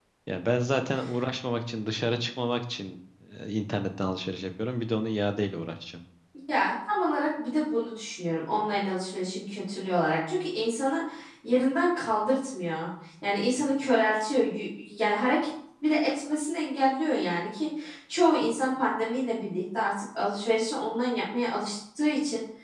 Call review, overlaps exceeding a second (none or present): none